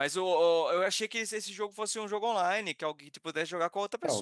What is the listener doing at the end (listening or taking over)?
taking over